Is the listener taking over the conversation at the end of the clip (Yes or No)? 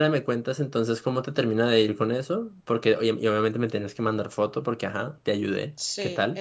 Yes